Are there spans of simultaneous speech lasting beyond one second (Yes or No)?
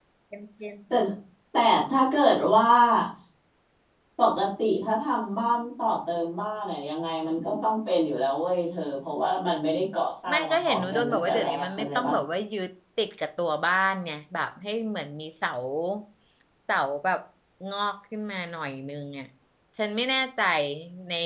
Yes